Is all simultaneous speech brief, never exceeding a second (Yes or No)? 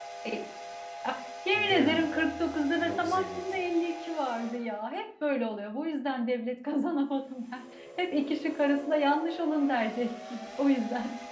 No